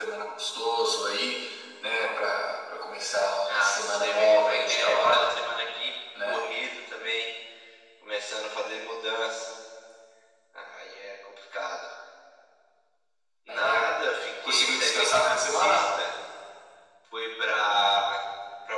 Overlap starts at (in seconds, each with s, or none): 3.5 s